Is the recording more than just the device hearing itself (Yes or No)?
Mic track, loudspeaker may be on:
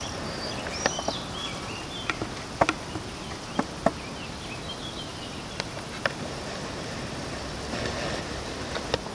No